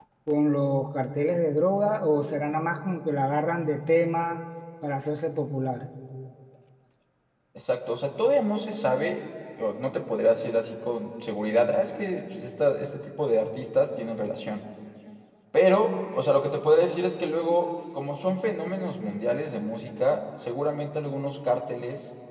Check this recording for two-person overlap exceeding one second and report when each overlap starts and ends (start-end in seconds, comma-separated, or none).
none